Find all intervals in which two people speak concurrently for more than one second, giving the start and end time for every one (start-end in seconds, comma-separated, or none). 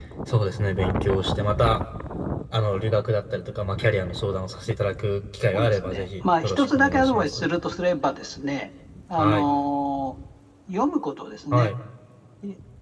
5.5-7.5